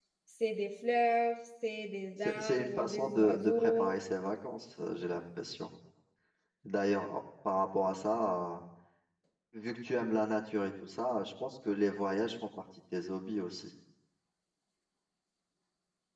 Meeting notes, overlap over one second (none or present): present